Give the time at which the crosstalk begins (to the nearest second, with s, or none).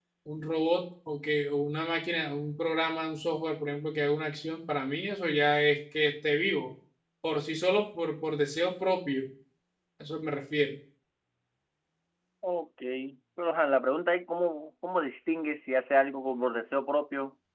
none